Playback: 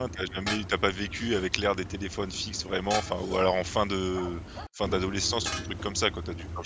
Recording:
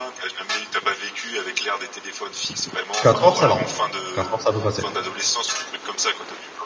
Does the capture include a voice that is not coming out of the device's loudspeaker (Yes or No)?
Yes